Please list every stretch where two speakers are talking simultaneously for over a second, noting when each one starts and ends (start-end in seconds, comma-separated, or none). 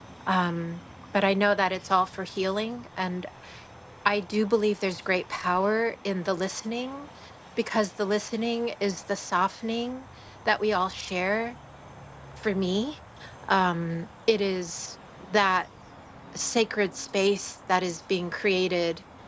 none